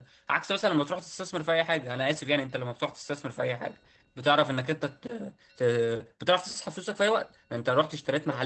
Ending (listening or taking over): listening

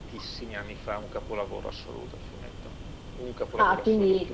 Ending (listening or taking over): taking over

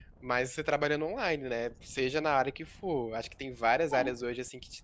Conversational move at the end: listening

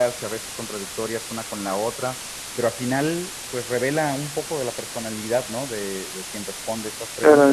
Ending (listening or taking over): taking over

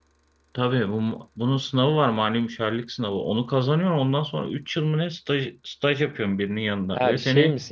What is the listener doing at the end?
taking over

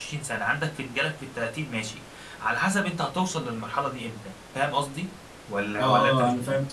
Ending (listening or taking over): taking over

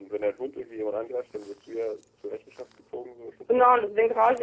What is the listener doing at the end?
taking over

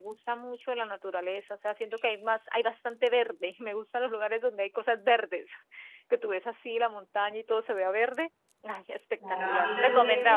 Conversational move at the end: taking over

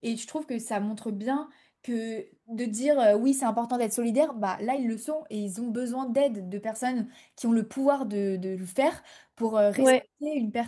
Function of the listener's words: listening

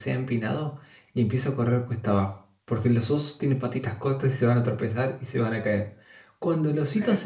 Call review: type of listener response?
listening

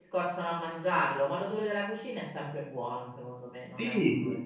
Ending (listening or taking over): taking over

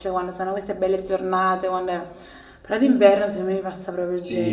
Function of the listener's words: taking over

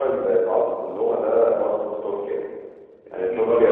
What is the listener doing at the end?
listening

